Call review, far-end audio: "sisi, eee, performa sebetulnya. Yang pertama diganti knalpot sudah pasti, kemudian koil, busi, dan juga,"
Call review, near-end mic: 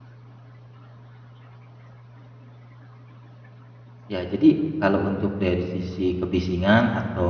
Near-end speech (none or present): present